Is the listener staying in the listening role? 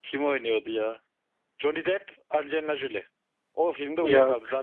Yes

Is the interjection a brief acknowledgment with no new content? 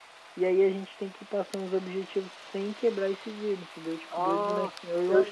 No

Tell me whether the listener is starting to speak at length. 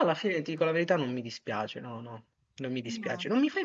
No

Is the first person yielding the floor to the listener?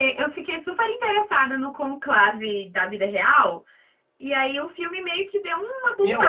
Yes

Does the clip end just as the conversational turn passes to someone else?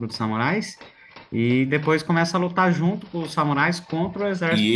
Yes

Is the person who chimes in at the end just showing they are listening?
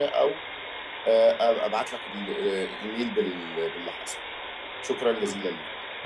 No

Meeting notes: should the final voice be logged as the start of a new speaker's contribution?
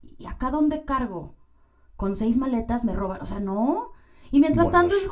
No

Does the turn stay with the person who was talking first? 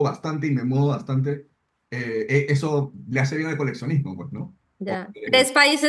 No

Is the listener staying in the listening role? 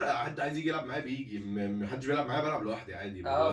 No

